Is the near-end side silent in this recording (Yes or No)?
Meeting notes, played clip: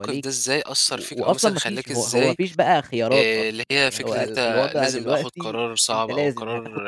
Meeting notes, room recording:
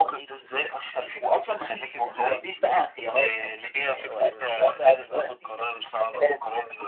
Yes